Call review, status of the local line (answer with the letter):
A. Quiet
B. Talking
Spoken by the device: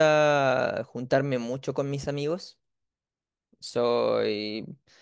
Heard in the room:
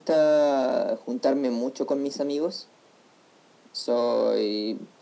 A